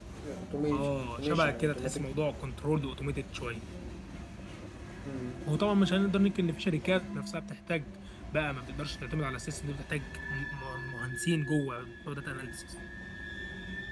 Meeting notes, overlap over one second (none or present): present